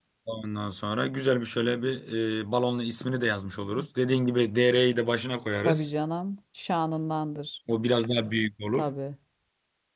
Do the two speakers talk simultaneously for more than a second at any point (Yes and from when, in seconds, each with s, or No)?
No